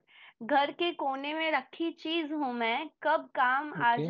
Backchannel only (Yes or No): Yes